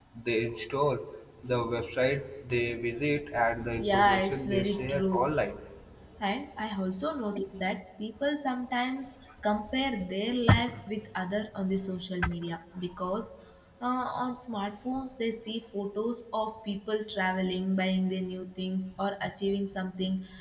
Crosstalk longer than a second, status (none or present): present